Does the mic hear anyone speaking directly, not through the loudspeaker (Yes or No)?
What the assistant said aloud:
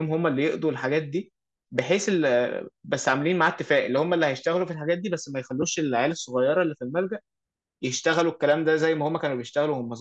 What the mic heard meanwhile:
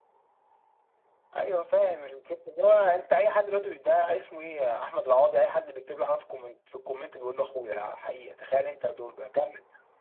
Yes